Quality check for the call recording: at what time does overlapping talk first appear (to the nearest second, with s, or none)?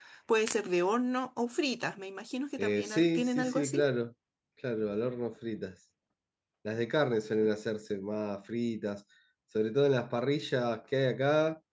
3 s